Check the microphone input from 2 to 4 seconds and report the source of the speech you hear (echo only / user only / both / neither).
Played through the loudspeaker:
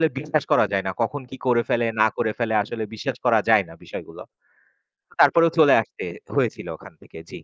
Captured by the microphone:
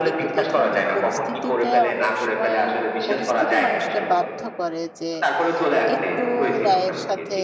both